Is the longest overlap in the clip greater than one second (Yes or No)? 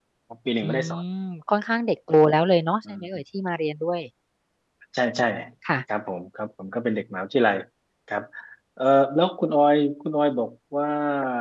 No